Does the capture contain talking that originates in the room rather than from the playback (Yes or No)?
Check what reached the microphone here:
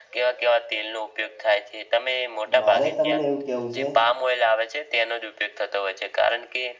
Yes